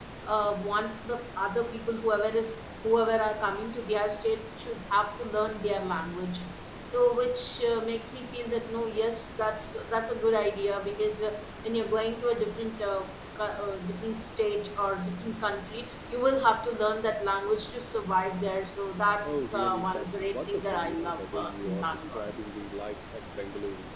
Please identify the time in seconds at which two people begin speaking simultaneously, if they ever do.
19.2 s

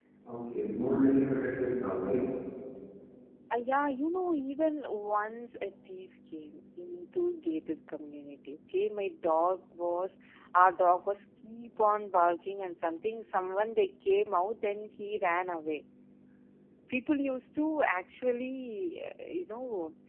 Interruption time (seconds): none

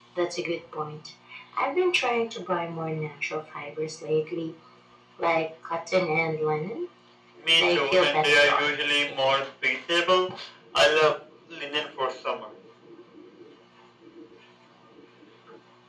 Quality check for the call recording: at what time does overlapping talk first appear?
7.6 s

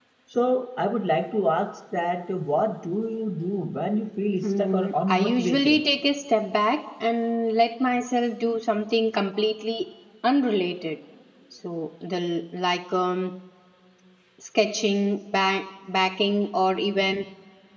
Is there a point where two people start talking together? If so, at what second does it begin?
4.4 s

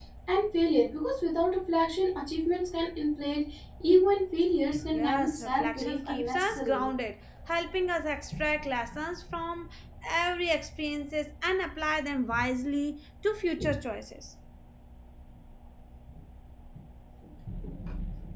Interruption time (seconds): 4.9 s

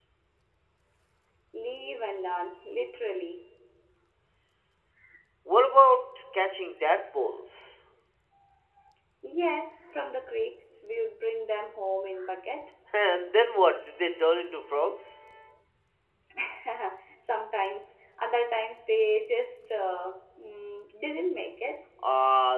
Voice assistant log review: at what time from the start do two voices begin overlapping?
none

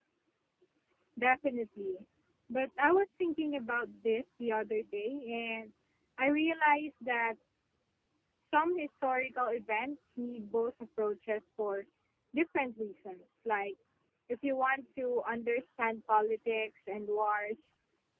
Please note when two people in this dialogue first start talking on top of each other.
none

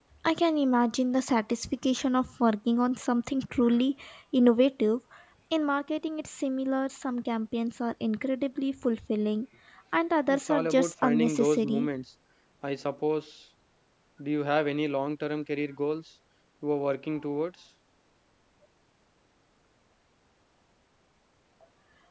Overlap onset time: 10.3 s

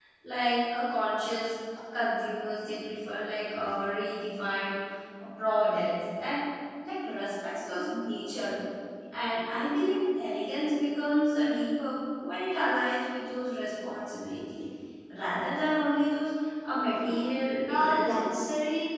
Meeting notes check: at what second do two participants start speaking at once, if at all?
17.0 s

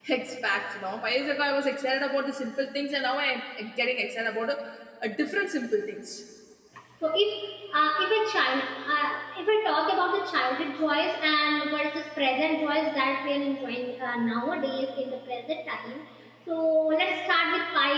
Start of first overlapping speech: none

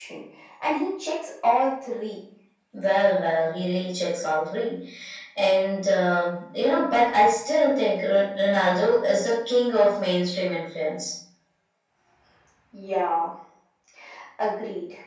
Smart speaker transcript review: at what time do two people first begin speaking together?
none

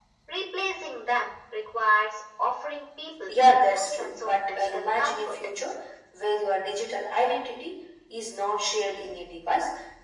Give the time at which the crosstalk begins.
3.3 s

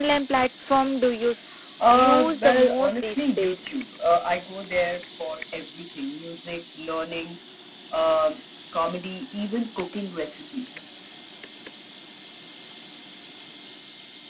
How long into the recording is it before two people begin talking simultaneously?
1.8 s

